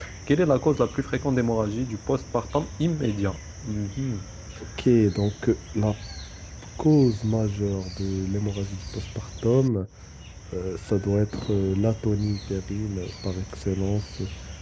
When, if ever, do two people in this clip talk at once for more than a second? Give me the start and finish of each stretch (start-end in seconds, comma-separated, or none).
none